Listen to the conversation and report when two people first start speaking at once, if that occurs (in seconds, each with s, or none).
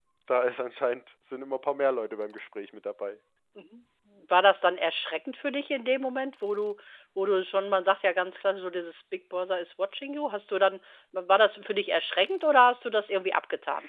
none